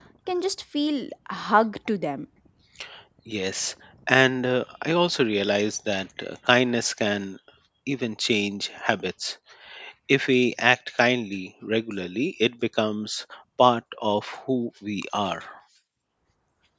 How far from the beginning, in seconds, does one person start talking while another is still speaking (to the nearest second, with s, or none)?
none